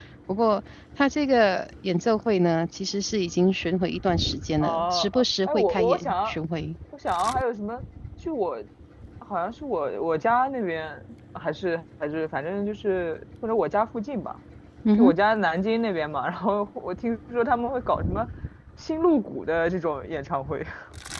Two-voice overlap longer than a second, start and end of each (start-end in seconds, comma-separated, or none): 4.6-6.3